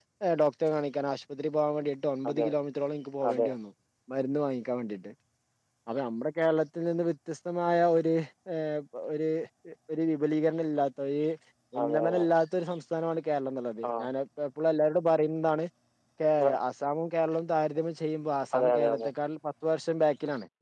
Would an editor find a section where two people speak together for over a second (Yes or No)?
No